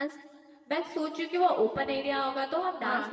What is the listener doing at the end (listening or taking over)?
listening